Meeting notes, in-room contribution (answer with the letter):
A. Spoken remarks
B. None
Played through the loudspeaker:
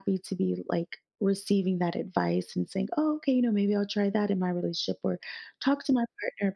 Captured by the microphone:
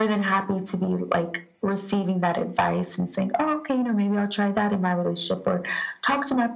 B